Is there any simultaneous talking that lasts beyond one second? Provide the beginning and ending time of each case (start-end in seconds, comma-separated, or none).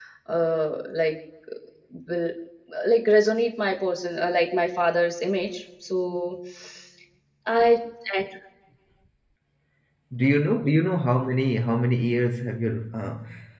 none